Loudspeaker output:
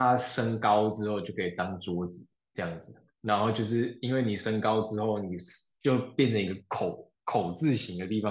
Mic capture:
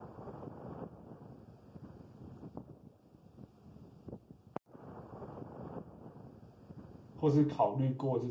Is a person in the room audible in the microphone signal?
Yes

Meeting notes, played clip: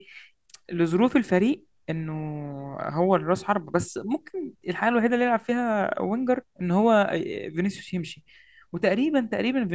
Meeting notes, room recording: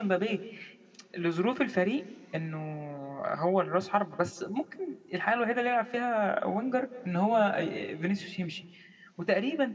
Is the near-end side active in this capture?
No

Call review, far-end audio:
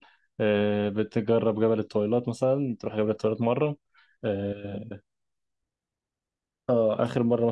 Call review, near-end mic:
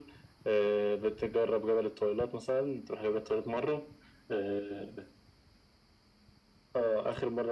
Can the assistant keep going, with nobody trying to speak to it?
Yes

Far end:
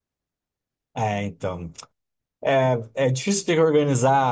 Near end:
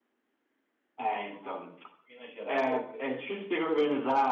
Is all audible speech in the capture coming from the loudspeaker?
No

